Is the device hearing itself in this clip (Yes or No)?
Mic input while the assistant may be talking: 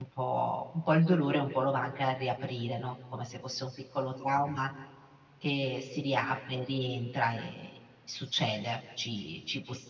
No